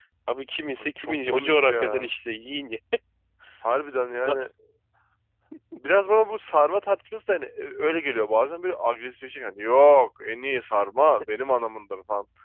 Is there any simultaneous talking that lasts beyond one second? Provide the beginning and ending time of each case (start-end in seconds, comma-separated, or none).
0.8-2.1